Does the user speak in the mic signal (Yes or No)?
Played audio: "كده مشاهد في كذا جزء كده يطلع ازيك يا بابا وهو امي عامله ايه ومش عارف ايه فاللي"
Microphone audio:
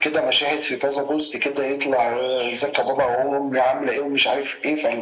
No